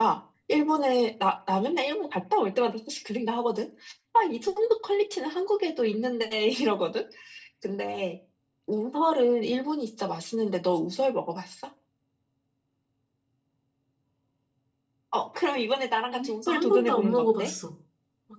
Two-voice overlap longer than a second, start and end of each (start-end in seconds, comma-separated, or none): 16.1-17.5